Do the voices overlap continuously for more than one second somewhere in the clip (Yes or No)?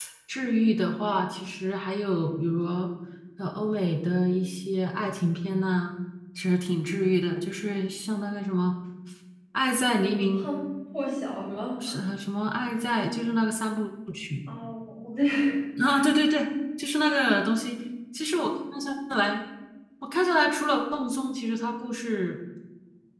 No